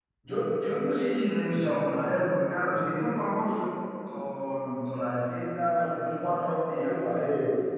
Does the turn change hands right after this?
Yes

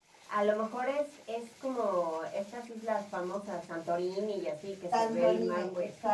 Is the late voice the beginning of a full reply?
Yes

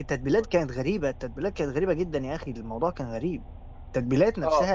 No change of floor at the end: Yes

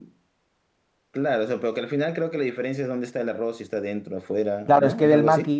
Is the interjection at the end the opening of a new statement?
Yes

